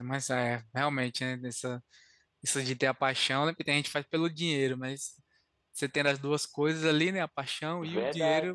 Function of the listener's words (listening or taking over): taking over